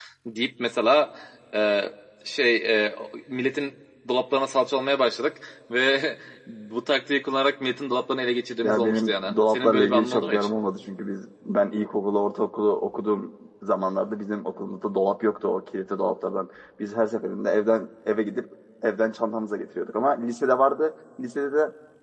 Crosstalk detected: Yes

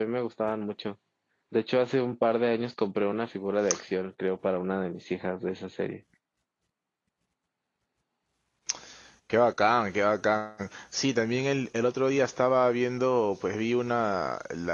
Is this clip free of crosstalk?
Yes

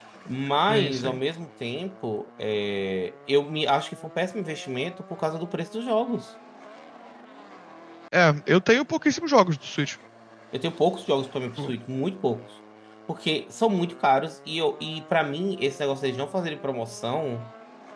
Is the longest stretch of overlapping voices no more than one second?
Yes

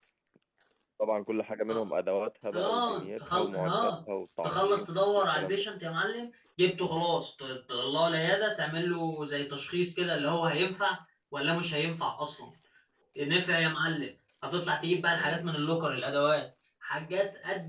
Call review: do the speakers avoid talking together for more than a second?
No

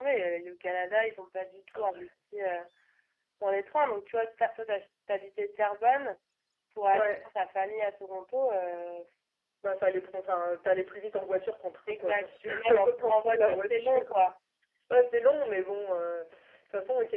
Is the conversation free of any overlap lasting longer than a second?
No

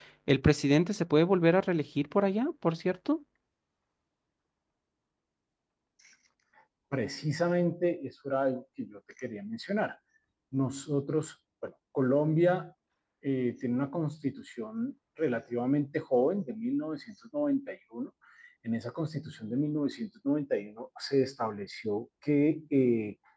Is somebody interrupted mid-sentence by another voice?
No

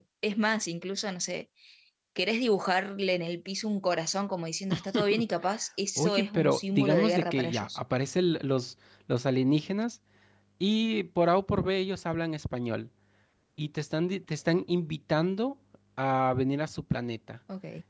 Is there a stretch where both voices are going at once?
Yes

